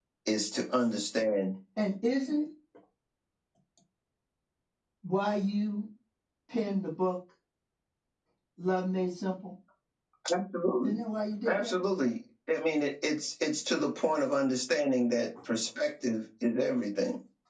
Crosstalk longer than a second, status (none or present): none